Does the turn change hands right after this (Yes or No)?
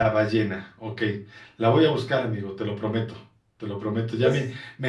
No